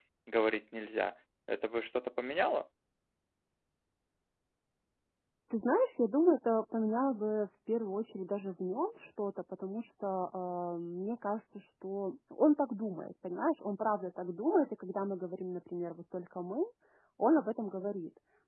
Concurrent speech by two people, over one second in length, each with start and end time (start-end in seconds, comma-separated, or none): none